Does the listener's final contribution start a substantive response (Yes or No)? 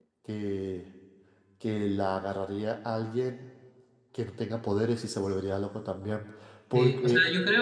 Yes